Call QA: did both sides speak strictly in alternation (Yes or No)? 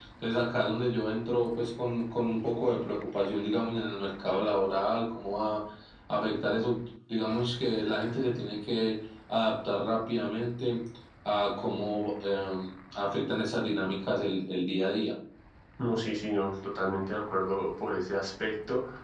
Yes